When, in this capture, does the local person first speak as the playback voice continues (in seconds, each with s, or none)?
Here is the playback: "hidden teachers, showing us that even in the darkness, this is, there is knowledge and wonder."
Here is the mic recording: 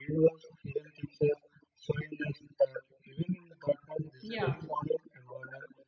4.2 s